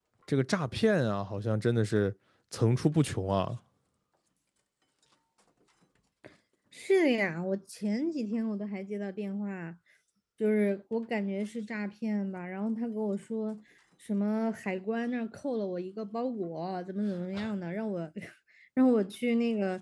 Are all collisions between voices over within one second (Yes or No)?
Yes